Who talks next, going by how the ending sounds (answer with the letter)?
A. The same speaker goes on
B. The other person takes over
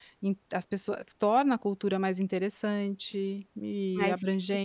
A